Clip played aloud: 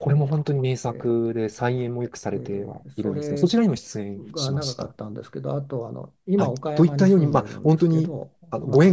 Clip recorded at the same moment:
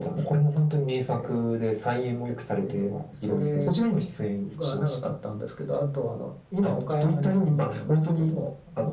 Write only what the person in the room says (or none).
none